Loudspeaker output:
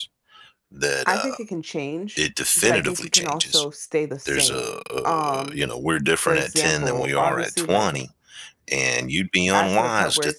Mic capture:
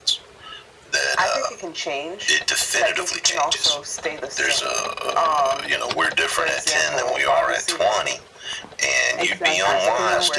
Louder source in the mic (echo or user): echo